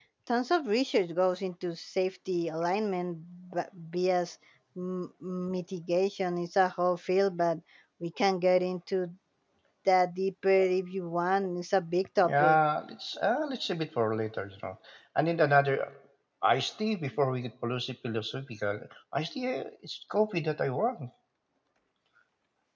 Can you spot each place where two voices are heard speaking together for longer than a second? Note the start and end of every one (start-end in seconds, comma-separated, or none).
none